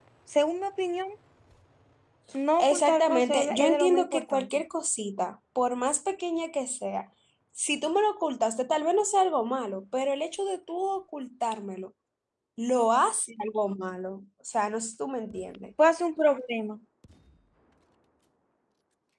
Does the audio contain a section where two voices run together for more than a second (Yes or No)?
Yes